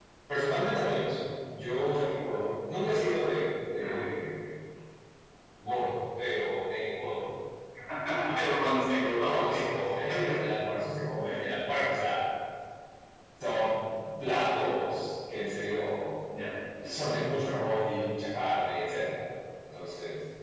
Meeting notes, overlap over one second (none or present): none